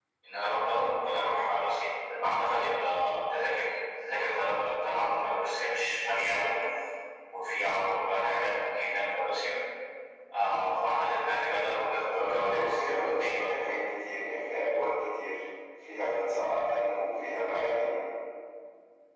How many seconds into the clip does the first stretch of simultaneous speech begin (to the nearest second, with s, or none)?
12 s